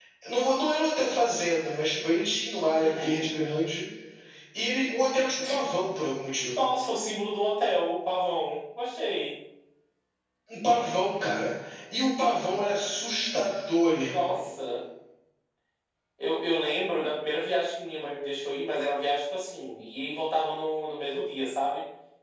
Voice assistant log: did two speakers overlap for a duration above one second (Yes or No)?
No